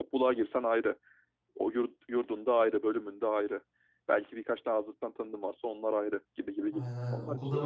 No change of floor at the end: No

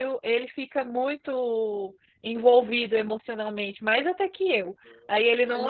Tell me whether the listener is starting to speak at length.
No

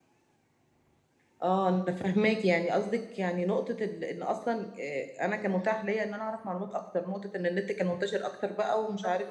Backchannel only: No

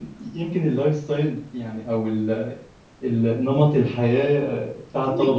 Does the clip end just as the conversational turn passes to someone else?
Yes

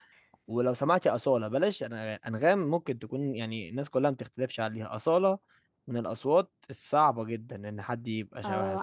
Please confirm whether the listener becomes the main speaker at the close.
Yes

